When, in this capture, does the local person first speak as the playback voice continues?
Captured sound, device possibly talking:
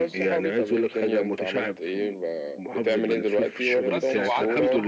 3.8 s

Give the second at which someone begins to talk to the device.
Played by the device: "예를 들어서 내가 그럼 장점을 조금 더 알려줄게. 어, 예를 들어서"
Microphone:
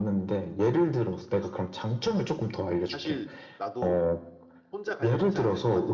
2.9 s

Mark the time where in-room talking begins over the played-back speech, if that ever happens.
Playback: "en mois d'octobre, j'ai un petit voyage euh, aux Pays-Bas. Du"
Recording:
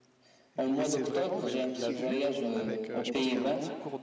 0.6 s

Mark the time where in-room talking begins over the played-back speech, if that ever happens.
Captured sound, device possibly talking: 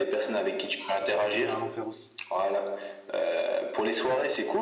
1.0 s

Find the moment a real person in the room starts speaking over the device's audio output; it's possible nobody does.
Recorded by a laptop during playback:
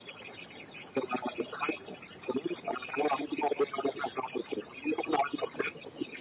none

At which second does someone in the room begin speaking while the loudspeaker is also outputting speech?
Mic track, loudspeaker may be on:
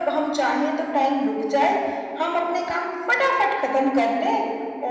none

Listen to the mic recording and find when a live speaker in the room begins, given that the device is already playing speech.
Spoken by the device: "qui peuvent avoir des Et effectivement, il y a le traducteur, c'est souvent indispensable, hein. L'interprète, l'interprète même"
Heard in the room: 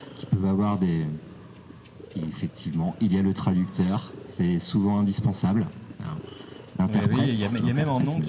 6.9 s

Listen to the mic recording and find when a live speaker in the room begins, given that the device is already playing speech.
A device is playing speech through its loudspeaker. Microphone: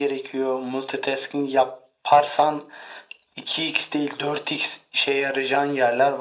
none

